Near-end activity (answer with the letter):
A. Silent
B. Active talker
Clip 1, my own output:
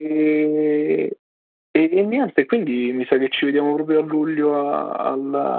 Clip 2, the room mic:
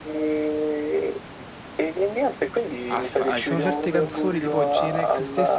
B